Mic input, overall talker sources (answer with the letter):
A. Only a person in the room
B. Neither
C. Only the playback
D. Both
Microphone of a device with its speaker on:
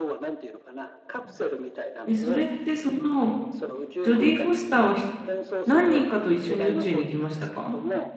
D